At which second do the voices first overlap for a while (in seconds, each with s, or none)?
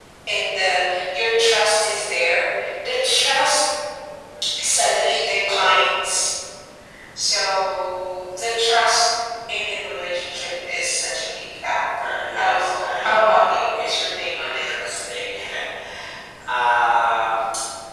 12.0 s